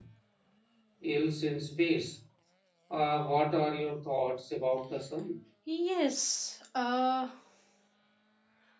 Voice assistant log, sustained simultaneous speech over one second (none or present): none